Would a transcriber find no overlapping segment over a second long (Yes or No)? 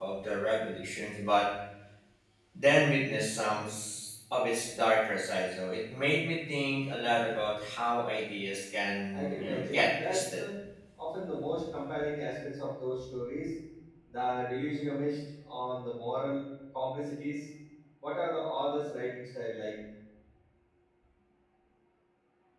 No